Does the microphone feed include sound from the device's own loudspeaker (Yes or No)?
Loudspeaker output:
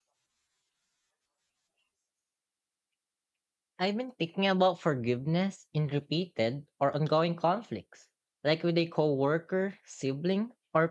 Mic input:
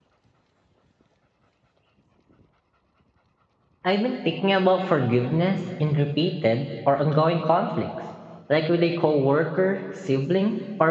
Yes